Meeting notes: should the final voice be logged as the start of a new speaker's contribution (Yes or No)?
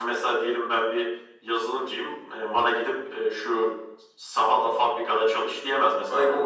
Yes